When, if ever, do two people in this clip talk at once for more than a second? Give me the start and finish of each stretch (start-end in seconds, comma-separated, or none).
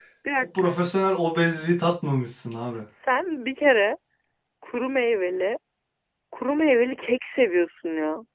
none